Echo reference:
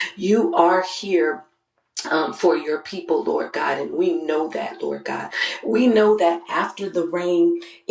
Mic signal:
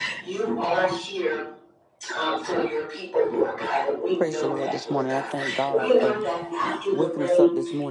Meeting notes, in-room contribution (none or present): present